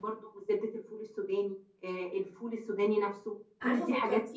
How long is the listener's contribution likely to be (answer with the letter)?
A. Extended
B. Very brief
A